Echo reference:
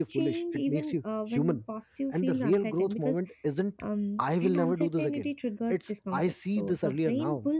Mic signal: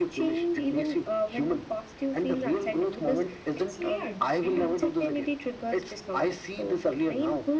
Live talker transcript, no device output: it's layered, right?

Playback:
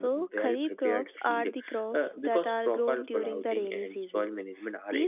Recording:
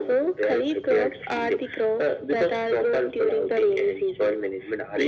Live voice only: none

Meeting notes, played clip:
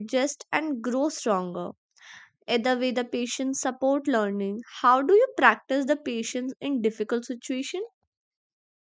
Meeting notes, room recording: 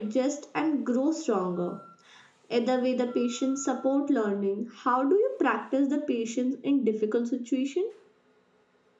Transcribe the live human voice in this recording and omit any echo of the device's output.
none

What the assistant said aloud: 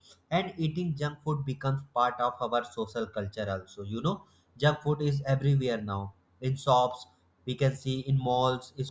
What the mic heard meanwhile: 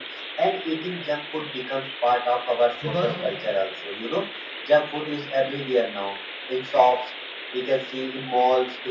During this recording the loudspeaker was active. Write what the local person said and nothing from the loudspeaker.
because

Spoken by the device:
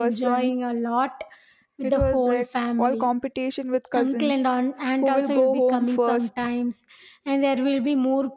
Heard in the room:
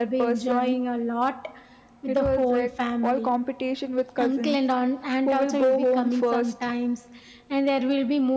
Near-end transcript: none

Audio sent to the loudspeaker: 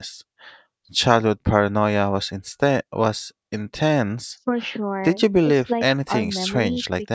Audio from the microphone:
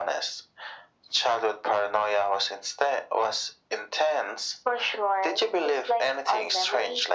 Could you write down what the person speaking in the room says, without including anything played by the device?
none

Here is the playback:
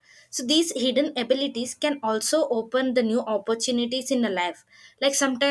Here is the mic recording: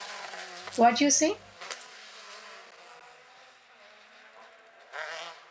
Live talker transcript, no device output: what you say

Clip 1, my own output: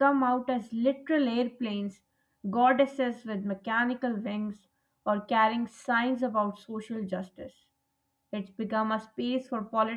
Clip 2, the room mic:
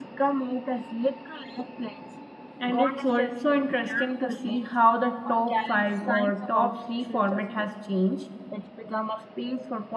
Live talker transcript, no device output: and it's also interesting to see how the top 5 or top 3 format has changed.

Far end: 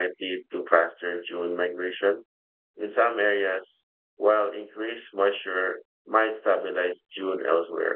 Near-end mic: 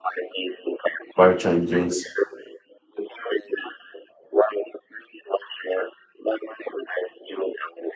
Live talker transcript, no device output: Barchan dunes

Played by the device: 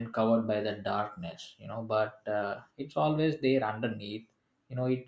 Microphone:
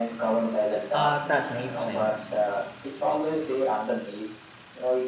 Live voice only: uh, that makes sense

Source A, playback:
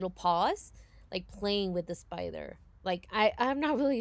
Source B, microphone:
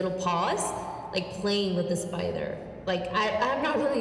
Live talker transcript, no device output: none

